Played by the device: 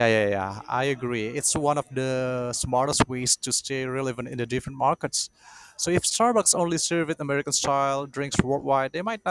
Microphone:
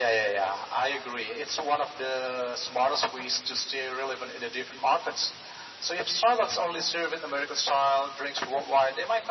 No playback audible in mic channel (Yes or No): No